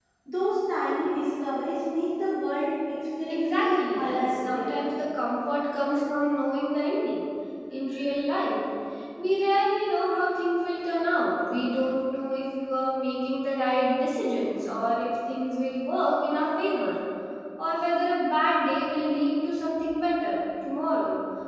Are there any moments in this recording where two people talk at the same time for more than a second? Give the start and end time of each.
3.3-4.8

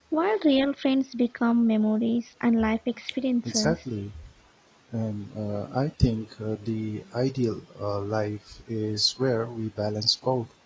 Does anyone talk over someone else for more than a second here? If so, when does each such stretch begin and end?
none

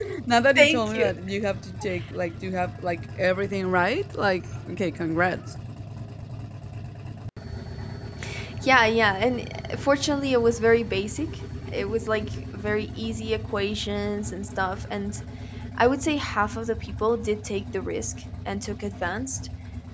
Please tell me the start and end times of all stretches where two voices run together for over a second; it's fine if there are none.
none

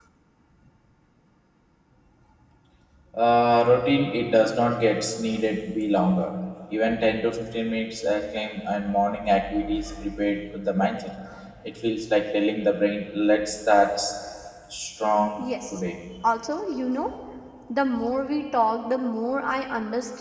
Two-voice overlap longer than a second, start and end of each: none

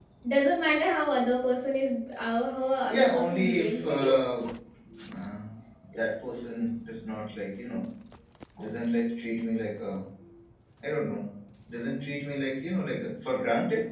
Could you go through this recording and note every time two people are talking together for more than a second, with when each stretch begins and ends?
2.9-4.2

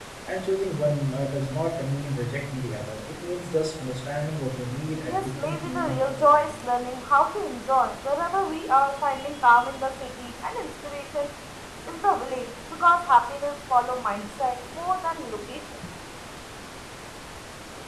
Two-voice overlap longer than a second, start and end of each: 5.1-6.4

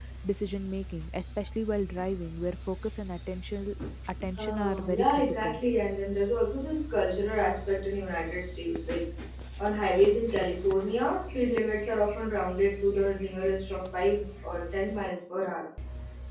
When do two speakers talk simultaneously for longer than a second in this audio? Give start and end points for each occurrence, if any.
4.4-5.6

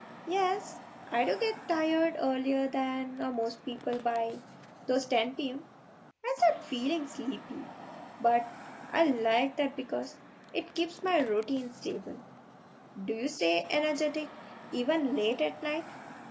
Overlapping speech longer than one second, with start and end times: none

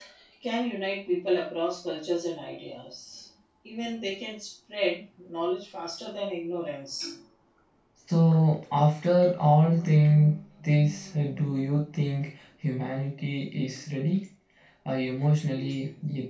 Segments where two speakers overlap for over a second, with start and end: none

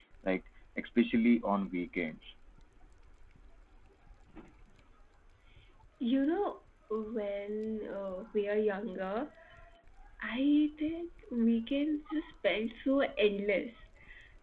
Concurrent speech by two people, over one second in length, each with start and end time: none

